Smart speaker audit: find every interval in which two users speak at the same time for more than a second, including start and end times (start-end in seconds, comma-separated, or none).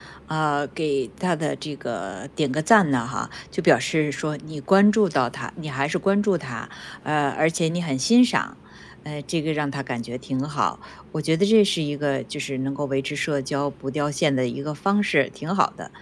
none